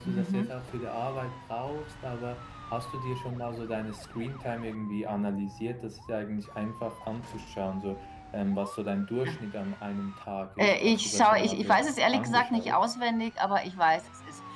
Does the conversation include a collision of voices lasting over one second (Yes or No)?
Yes